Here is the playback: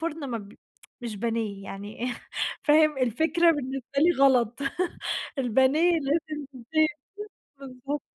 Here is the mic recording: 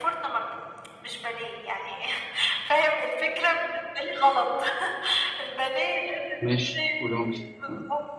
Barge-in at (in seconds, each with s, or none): 6.4 s